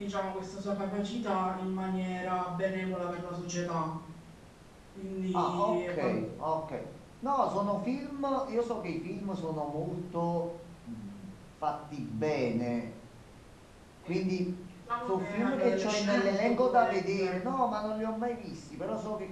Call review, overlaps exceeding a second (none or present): present